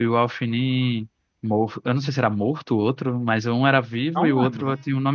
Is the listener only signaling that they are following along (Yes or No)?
Yes